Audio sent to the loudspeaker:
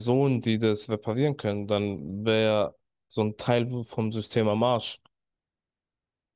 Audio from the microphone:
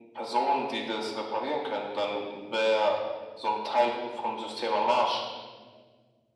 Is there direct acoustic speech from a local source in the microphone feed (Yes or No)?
No